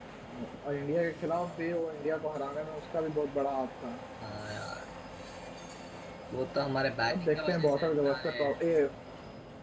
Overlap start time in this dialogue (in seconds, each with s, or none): 7.1 s